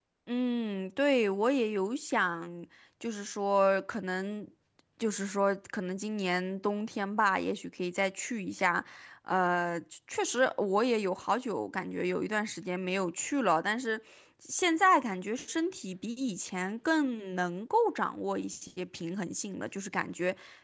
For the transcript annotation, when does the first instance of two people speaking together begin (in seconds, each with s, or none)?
none